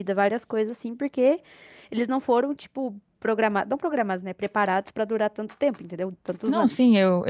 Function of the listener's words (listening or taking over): taking over